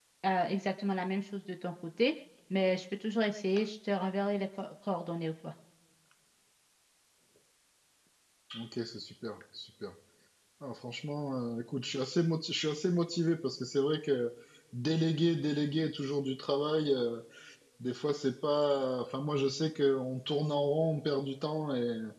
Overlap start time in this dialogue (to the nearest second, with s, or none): none